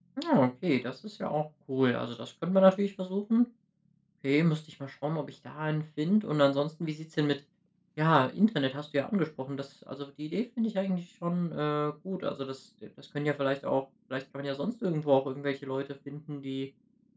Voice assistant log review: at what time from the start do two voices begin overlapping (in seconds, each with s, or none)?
none